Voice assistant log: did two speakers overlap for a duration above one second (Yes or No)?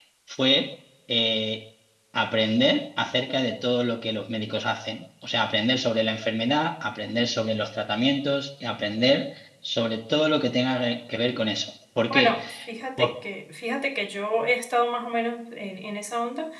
No